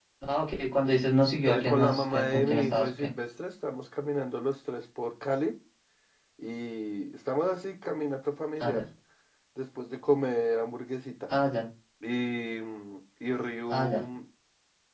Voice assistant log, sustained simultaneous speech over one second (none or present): present